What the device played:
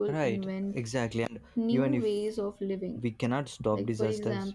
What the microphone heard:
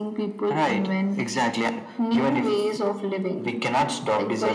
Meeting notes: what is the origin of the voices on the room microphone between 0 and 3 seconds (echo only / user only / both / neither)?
echo only